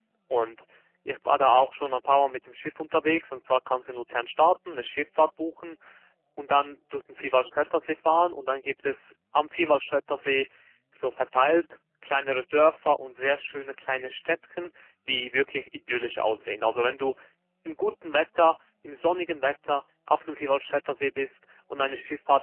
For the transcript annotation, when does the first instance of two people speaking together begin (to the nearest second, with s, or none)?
none